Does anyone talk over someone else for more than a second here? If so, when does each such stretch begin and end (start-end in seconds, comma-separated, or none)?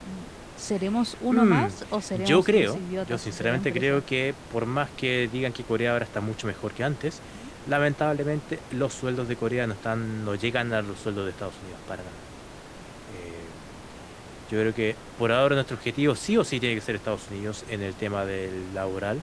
2.1-4.0